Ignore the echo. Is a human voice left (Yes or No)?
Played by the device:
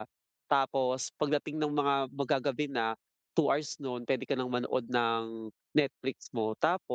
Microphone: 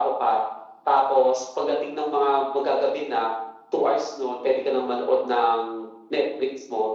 No